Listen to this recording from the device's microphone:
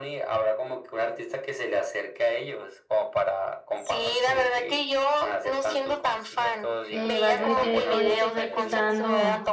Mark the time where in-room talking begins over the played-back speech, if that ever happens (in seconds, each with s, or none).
6.9 s